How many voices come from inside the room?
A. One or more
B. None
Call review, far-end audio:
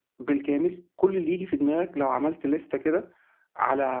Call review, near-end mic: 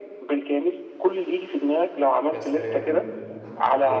A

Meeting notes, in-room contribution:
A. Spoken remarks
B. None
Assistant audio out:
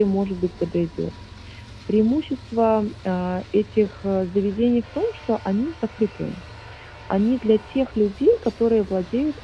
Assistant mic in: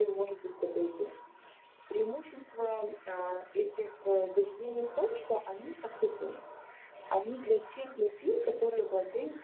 B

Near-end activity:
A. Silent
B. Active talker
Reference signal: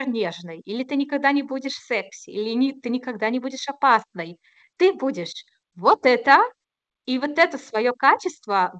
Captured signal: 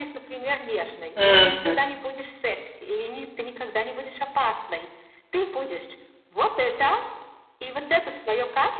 B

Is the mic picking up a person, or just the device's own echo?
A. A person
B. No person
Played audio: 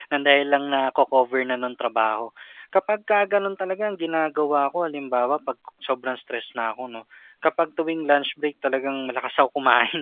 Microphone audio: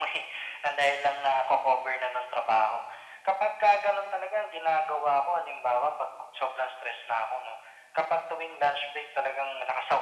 B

